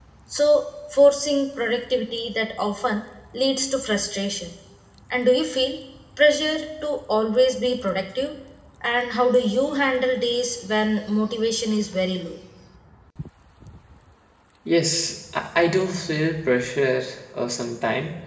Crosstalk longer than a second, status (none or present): none